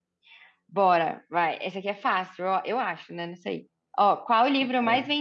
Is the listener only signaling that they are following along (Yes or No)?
Yes